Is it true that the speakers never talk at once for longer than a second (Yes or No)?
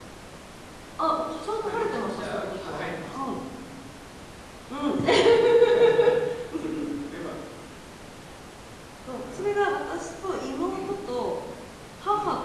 No